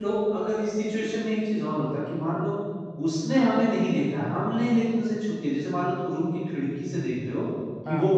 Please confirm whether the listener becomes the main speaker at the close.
No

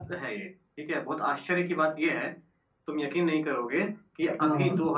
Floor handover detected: No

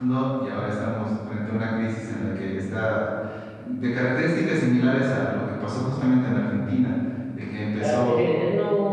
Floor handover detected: Yes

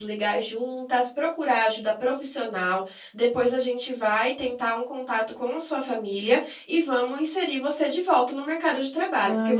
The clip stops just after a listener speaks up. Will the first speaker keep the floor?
No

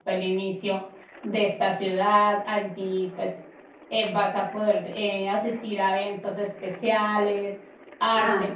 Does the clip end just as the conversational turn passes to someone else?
Yes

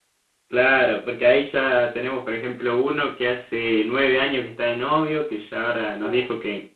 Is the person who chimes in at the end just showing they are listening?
Yes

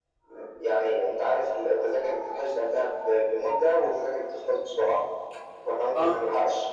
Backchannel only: Yes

